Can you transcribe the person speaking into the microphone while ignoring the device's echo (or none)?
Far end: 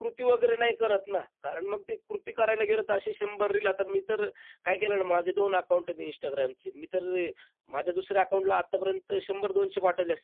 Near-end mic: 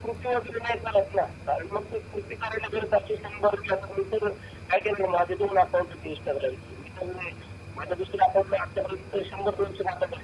none